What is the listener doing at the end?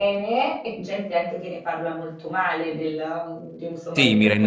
taking over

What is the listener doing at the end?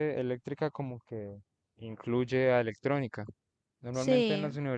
listening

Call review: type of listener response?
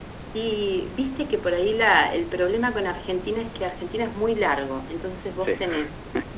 listening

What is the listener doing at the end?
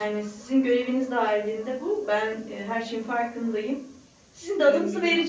listening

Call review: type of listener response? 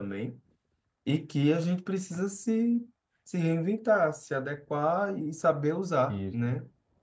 listening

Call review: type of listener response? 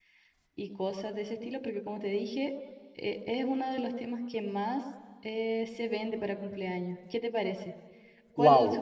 taking over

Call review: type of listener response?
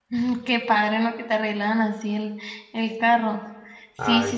listening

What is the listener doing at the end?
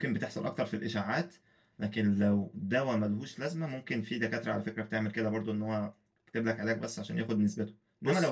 listening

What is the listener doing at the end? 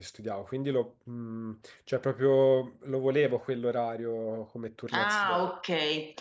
taking over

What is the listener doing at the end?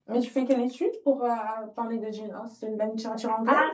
taking over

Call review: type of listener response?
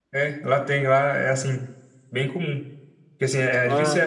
listening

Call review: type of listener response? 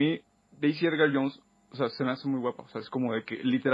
listening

